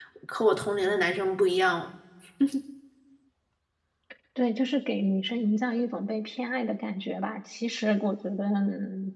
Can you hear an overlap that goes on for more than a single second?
No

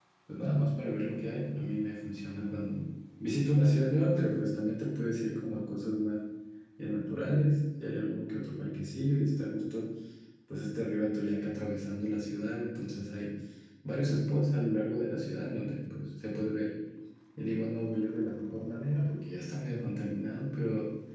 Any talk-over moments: No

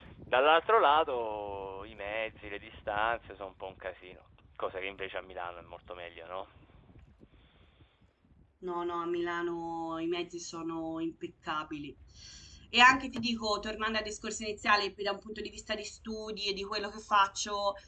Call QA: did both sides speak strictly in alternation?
Yes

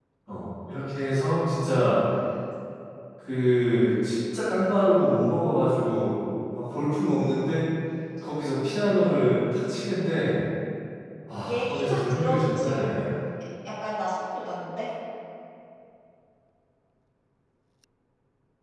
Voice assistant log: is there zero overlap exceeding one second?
No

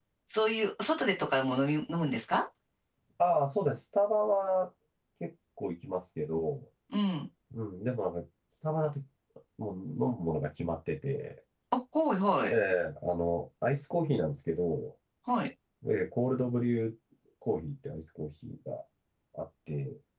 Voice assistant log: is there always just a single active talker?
Yes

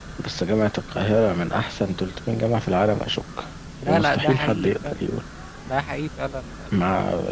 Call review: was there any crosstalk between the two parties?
Yes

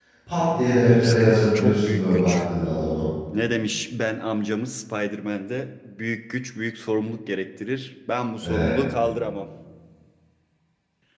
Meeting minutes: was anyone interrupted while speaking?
Yes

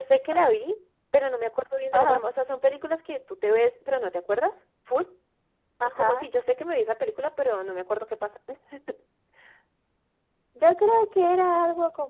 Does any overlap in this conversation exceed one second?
No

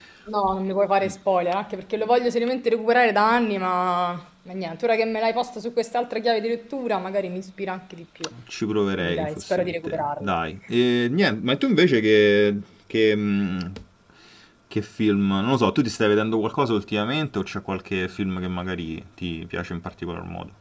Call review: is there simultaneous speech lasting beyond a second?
Yes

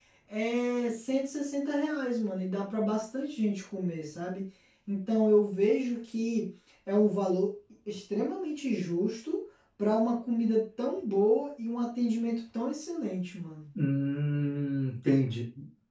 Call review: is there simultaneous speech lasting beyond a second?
No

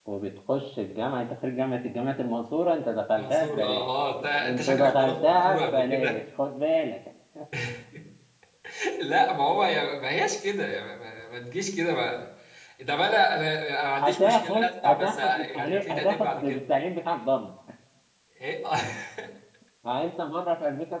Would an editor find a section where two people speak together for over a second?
Yes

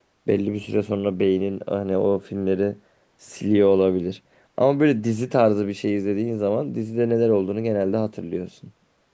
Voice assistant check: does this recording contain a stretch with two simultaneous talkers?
No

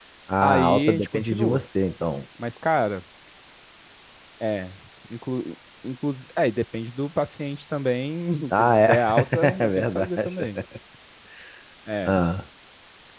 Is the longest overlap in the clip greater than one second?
Yes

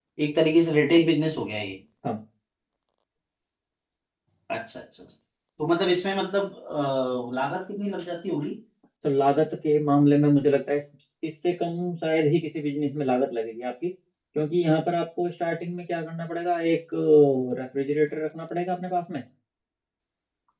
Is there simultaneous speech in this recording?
No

